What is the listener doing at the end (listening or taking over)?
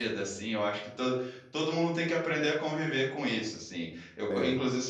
listening